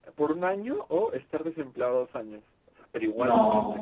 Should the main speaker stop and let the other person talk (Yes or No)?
No